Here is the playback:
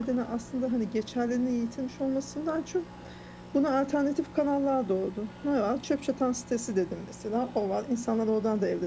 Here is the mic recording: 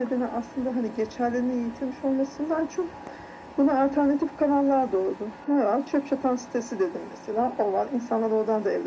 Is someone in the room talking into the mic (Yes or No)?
No